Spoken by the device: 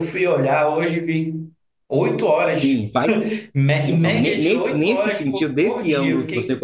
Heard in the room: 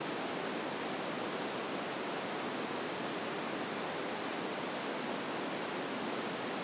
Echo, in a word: none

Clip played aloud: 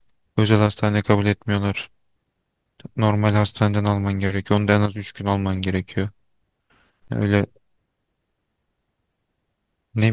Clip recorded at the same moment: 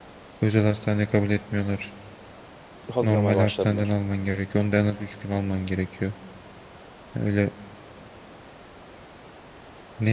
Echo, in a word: present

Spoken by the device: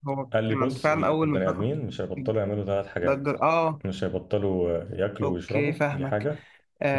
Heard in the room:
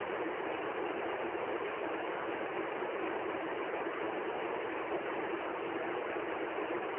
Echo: none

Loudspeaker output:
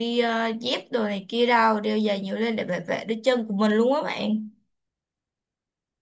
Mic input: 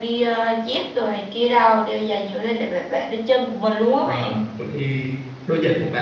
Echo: present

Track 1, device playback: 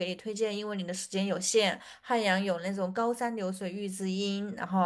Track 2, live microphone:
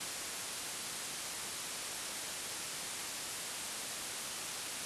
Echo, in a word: none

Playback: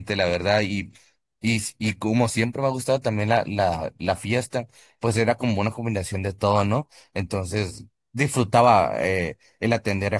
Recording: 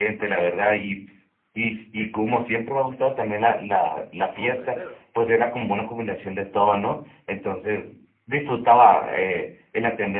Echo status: present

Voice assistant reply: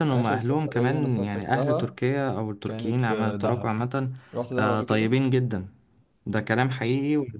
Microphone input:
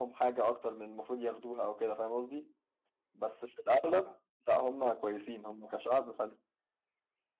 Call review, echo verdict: none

